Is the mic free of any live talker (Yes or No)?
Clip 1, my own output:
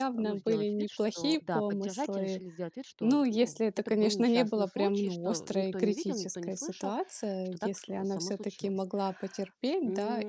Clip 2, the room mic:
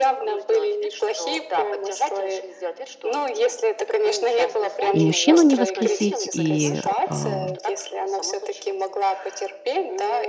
No